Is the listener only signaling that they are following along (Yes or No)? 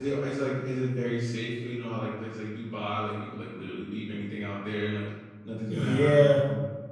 No